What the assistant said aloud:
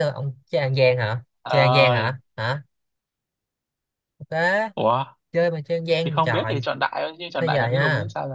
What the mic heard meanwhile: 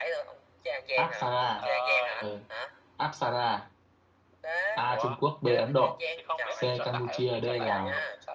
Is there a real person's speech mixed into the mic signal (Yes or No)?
Yes